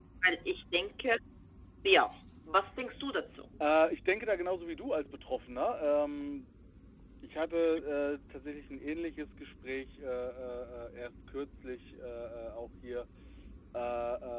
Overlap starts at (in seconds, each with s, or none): none